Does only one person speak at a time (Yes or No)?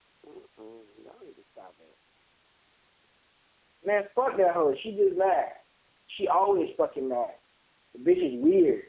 Yes